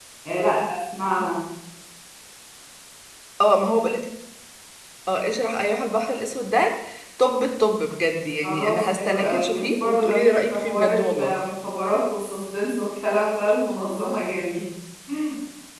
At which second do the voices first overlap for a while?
8.4 s

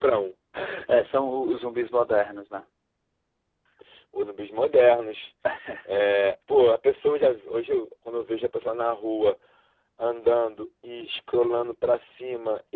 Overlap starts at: none

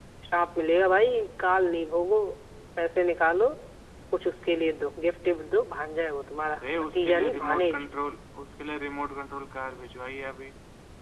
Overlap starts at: 6.5 s

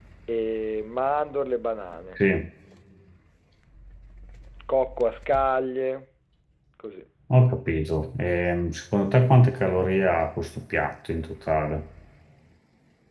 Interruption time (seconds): none

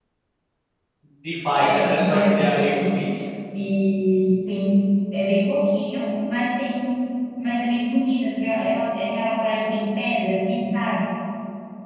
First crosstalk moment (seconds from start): 1.6 s

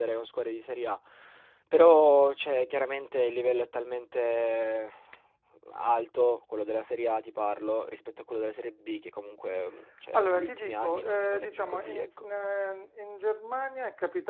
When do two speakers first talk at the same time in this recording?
10.1 s

